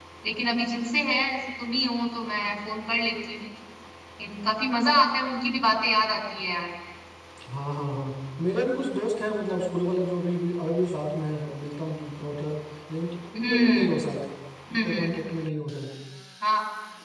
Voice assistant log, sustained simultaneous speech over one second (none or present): none